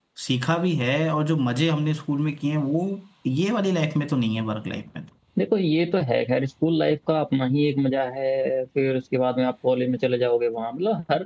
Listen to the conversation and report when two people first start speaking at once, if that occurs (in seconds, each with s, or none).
none